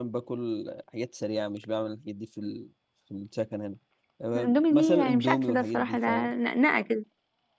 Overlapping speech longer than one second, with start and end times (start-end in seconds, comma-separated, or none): 4.4-6.3